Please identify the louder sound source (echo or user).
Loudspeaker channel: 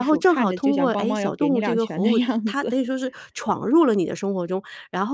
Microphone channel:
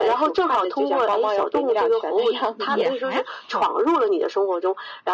echo